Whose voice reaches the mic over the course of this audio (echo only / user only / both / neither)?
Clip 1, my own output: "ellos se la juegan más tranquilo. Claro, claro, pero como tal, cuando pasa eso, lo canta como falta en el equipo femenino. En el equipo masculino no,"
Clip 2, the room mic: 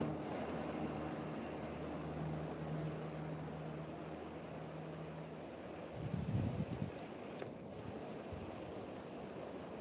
neither